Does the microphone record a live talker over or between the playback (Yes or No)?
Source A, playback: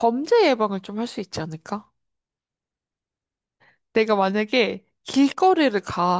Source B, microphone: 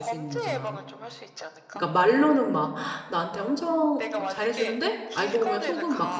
Yes